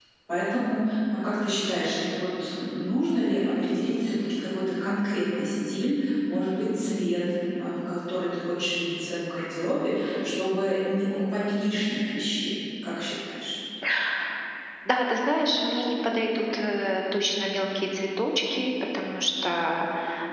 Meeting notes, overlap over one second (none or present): none